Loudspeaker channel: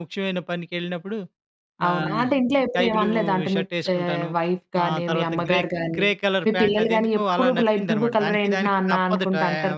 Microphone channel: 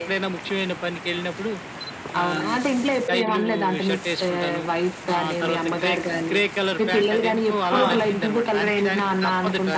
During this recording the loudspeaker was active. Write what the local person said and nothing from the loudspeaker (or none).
ఆ!